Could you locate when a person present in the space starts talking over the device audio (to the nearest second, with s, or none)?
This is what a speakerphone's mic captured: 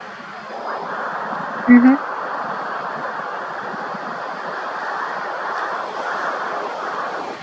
2 s